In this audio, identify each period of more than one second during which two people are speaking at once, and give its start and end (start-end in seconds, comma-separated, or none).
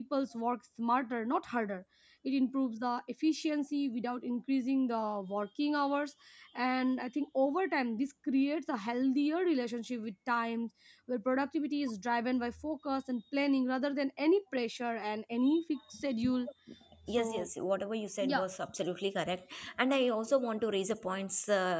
none